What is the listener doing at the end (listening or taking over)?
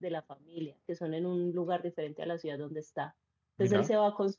listening